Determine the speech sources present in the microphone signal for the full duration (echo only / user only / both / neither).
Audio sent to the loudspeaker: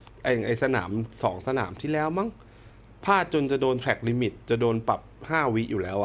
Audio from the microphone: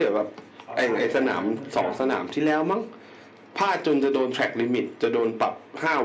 both